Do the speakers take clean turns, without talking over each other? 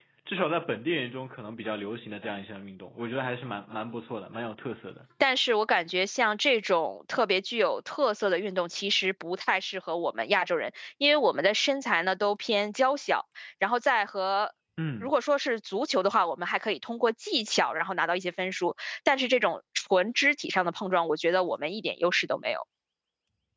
Yes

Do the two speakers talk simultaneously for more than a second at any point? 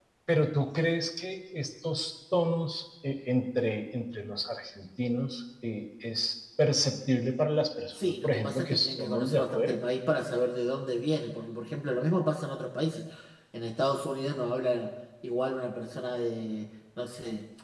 Yes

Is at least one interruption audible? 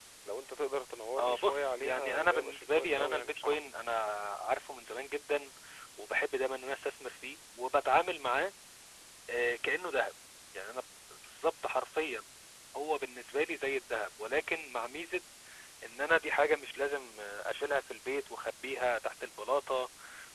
Yes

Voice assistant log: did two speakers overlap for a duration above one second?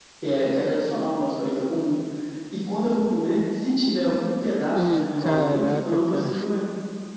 Yes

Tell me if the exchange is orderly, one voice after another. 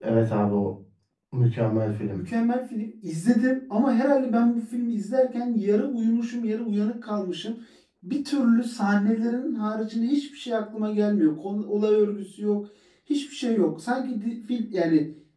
Yes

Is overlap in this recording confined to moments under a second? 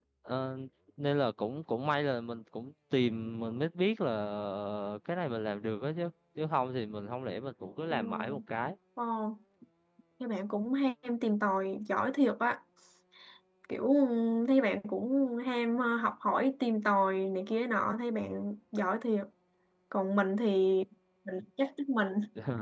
Yes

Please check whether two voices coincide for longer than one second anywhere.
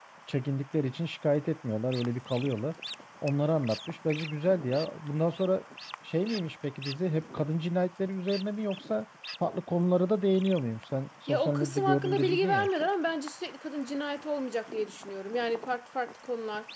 Yes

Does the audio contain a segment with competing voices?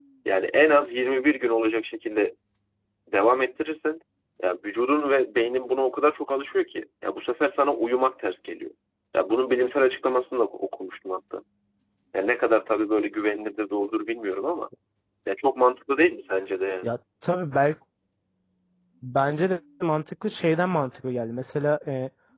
No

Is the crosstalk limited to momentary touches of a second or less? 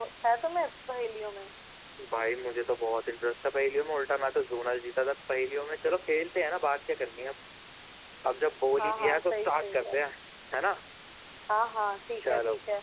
No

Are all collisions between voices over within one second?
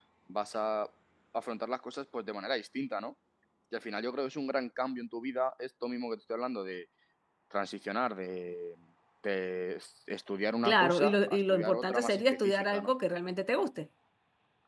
No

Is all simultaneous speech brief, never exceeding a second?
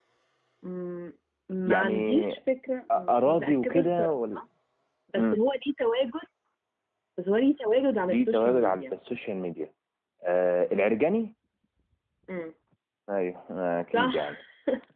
No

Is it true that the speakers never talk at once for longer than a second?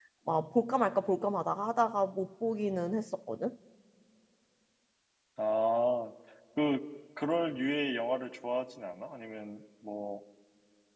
Yes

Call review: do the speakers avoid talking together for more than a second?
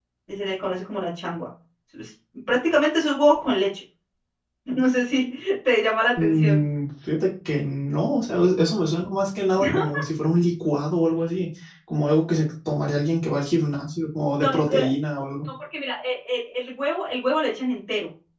Yes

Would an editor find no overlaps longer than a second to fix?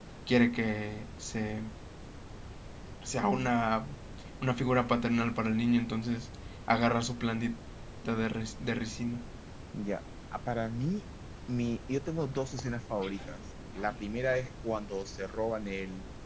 Yes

